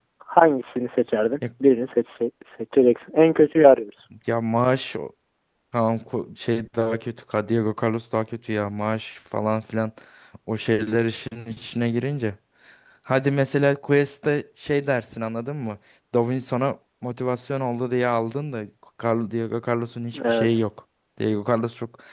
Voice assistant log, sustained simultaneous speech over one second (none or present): none